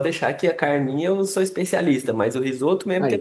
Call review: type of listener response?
listening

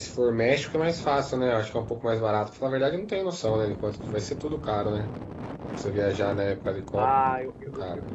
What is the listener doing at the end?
taking over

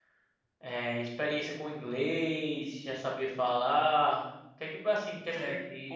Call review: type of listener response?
taking over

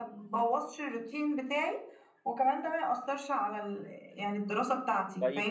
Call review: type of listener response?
taking over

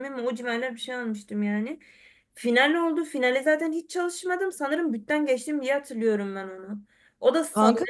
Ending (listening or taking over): listening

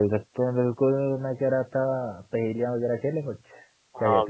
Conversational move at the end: taking over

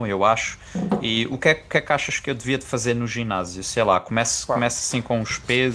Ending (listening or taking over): listening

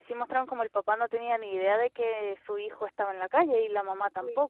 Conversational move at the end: taking over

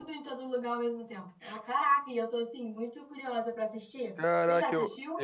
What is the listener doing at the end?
taking over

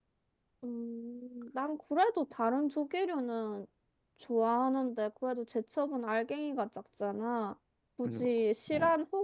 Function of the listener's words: listening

